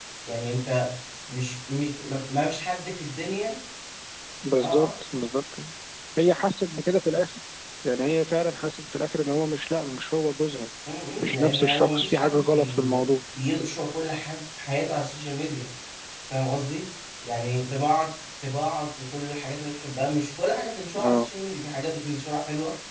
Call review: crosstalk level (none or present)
present